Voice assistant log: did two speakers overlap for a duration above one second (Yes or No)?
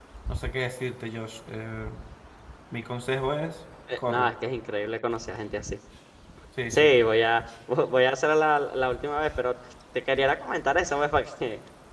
No